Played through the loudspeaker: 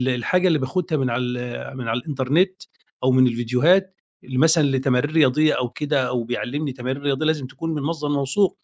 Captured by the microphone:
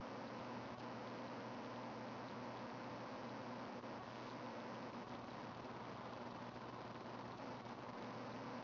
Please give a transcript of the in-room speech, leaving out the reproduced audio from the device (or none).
none